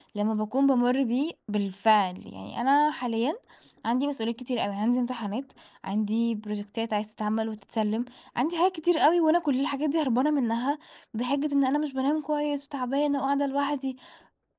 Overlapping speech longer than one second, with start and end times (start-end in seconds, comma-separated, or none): none